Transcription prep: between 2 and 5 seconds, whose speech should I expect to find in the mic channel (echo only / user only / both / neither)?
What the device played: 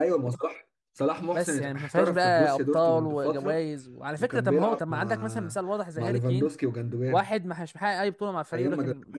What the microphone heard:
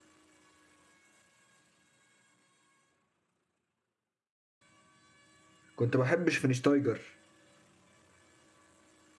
neither